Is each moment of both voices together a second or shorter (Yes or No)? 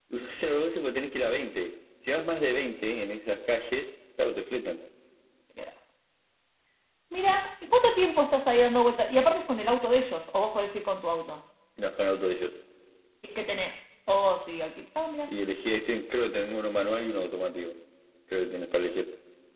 Yes